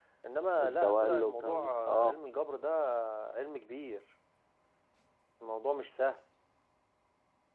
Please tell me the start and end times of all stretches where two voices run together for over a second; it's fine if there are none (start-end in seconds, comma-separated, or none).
0.6-2.2